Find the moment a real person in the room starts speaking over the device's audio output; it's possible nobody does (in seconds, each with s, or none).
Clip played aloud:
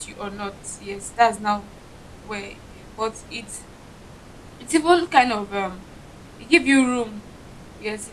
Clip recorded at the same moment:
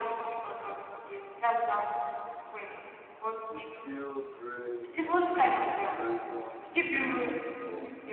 3.5 s